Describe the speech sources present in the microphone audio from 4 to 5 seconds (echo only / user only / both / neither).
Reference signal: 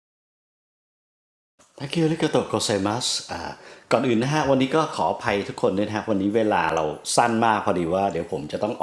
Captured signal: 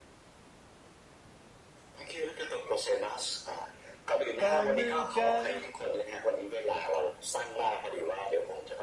both